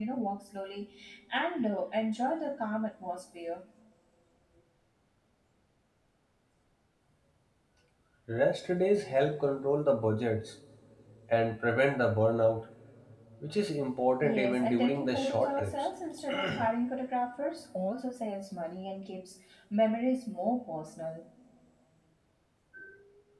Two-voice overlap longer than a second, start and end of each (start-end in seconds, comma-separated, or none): 14.2-15.9